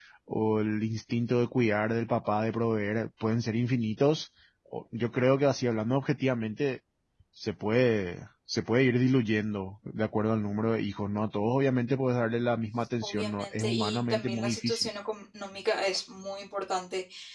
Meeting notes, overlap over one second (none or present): present